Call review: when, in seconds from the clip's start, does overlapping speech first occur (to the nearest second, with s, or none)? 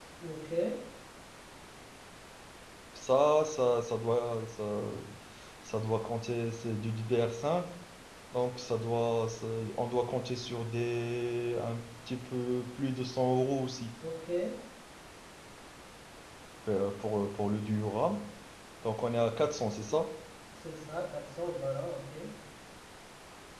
none